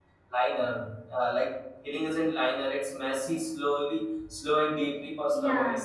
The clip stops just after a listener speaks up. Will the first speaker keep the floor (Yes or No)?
No